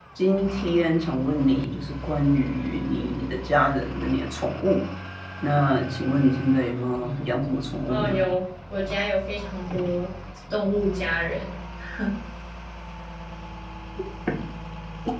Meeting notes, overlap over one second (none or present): none